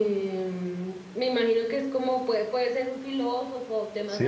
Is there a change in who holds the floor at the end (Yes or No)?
Yes